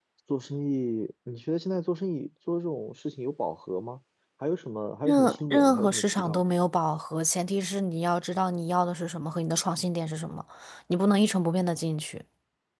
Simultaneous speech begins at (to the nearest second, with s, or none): 5 s